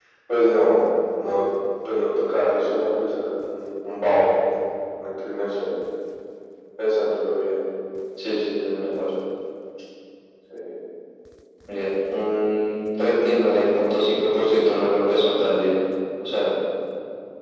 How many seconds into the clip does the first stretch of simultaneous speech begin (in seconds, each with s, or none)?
none